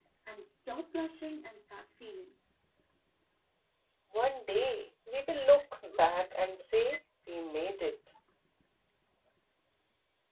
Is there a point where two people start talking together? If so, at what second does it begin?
none

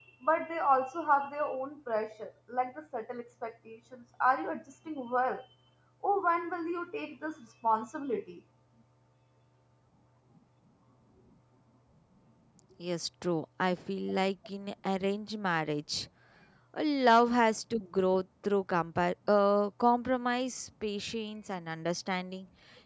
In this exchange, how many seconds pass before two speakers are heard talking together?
none

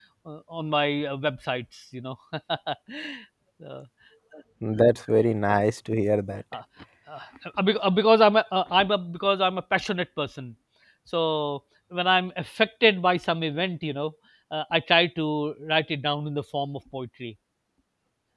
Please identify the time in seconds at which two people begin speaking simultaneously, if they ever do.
none

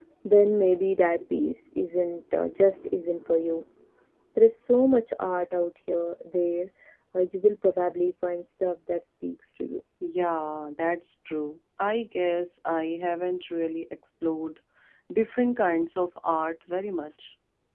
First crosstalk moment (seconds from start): none

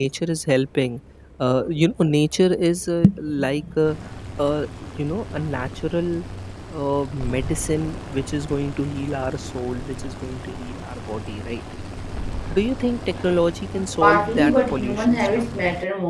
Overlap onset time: 13.8 s

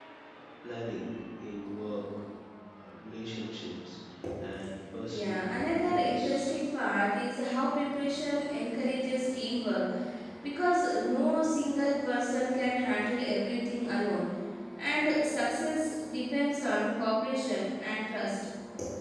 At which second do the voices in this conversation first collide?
5.1 s

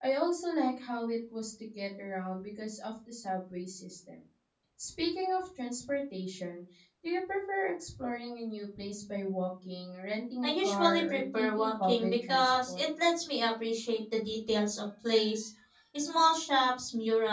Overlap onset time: 10.4 s

